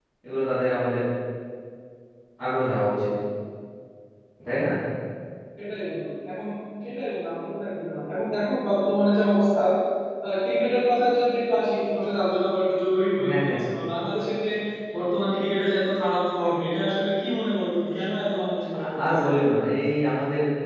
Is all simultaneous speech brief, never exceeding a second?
Yes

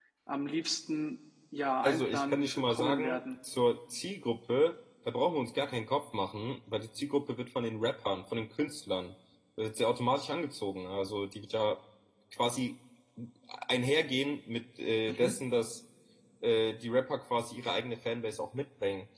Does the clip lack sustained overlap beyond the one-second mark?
No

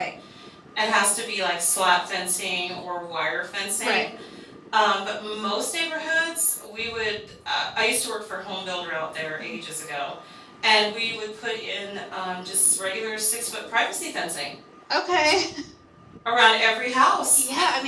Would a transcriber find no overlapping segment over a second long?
Yes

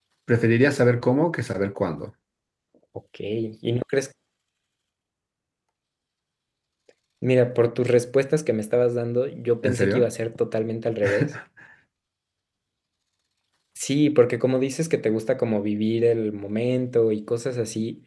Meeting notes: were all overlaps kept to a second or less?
Yes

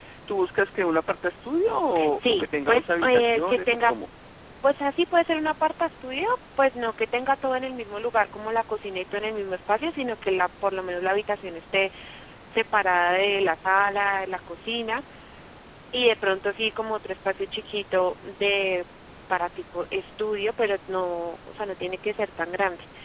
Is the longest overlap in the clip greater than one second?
Yes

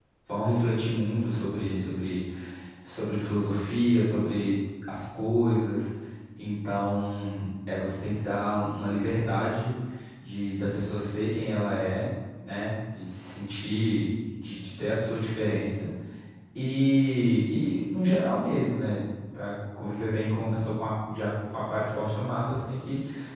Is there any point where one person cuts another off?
No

